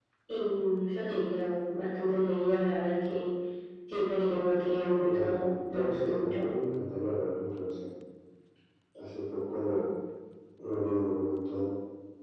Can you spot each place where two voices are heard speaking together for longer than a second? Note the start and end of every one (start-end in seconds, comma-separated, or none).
5.0-6.5